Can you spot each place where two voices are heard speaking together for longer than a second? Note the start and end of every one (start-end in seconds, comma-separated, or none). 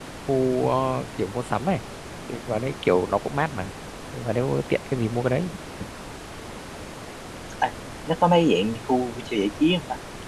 none